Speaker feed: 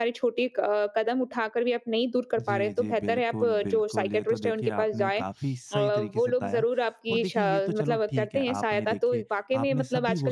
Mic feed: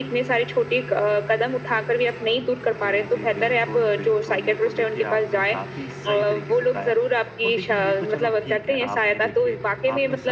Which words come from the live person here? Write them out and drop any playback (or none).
none